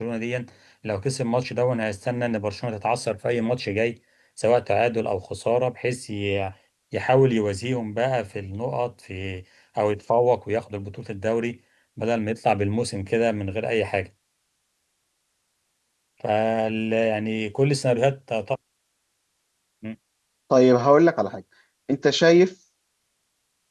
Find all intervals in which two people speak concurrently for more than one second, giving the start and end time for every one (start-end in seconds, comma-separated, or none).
none